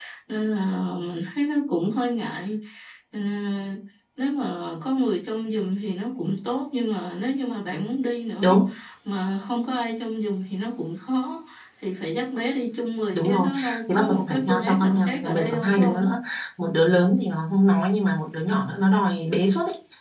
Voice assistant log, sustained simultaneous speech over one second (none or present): present